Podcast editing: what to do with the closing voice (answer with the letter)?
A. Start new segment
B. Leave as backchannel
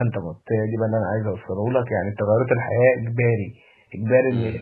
B